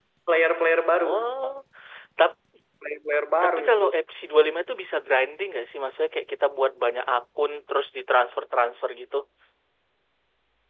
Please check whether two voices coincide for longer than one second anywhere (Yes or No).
No